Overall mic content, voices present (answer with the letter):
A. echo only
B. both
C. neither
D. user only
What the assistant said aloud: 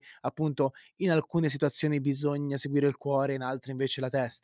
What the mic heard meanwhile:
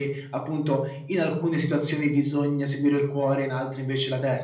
A